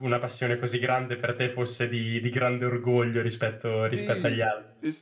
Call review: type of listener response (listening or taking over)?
taking over